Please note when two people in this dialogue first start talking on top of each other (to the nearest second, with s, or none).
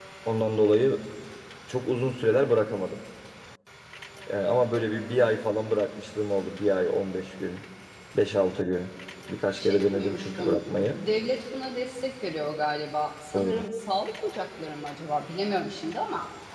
10 s